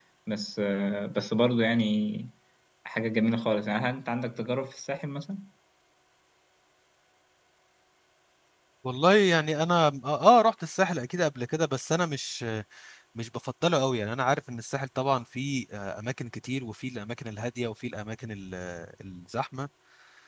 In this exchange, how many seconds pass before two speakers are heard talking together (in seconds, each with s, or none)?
none